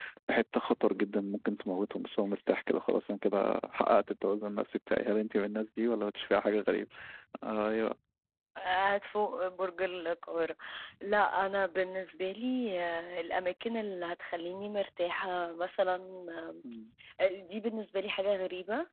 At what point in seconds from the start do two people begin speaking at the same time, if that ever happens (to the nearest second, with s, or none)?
none